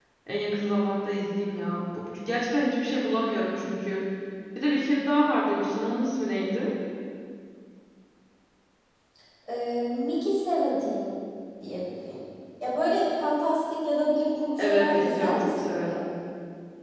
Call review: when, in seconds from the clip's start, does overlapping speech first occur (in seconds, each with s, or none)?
14.6 s